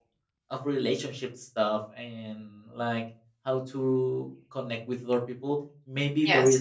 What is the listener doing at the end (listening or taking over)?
listening